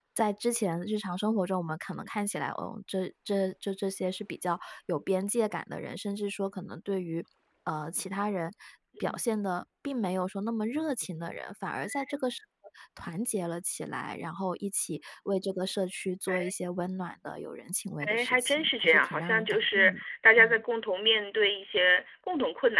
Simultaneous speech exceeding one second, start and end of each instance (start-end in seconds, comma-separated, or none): 18.0-20.0